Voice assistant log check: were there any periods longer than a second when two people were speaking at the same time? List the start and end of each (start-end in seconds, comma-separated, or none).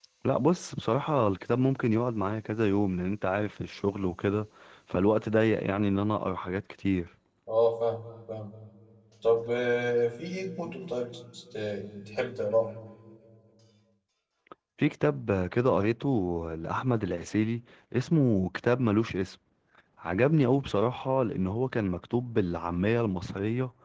none